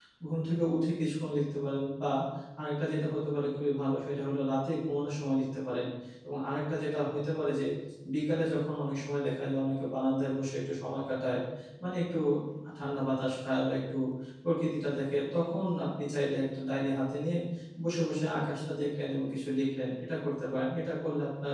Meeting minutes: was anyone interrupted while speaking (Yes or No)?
No